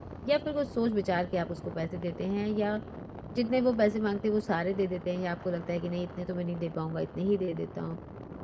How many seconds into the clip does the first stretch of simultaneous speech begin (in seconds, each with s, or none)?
none